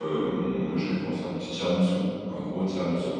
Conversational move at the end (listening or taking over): taking over